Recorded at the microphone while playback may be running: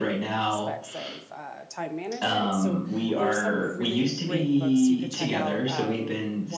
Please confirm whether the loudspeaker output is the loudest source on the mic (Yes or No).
Yes